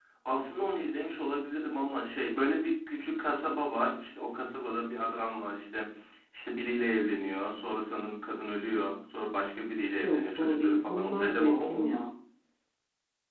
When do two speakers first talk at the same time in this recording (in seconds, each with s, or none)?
10.0 s